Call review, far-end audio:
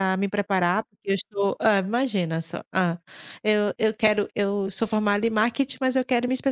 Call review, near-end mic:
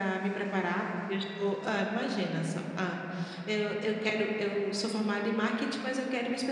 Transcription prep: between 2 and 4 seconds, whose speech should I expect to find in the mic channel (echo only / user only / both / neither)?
echo only